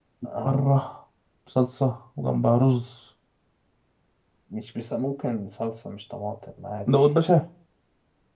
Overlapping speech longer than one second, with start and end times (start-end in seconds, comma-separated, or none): none